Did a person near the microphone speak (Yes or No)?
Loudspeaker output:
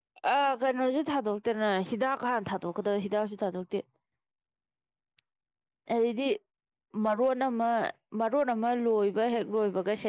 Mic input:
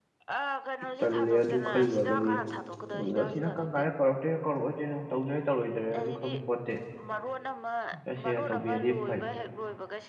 Yes